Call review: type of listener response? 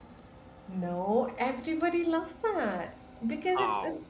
listening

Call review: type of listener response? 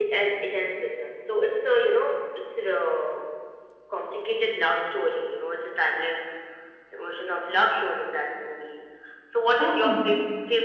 listening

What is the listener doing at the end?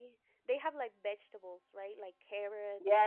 taking over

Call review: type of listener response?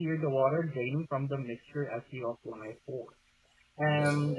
listening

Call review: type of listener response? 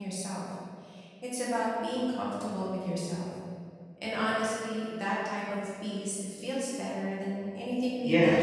taking over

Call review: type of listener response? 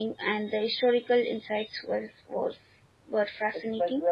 taking over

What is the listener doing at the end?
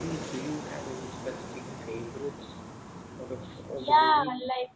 taking over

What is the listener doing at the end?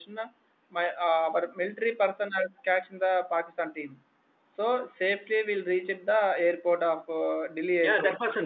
taking over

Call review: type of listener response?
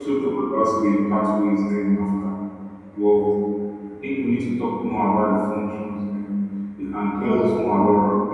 listening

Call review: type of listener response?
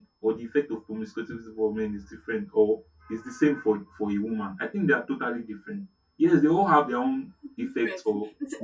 taking over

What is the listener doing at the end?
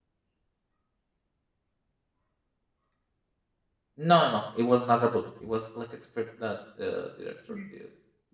listening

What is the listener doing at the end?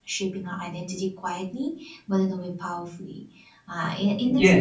taking over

